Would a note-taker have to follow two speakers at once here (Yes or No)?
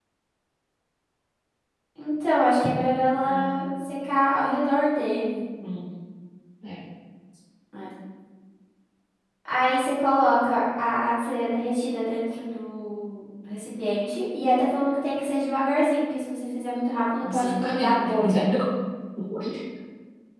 Yes